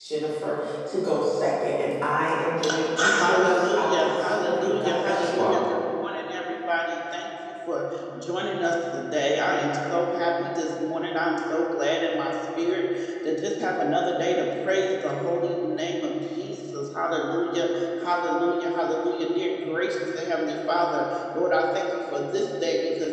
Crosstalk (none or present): present